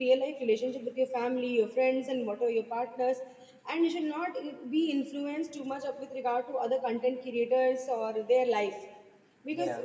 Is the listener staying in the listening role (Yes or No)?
Yes